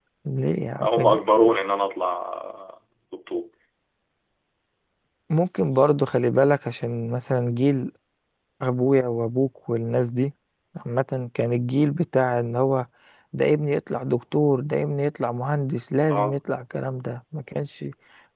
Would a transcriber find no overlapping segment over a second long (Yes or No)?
Yes